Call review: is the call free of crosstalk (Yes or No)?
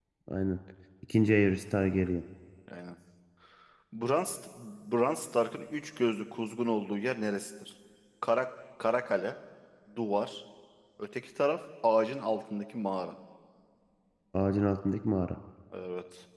Yes